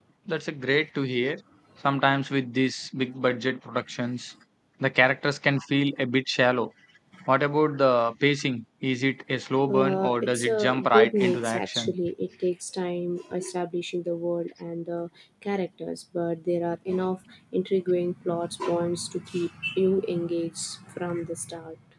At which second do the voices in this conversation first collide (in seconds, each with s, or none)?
9.7 s